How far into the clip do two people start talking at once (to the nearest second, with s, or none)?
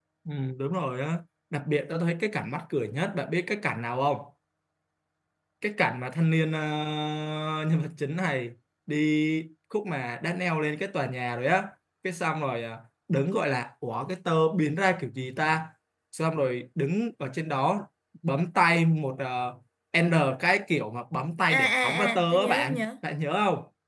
21 s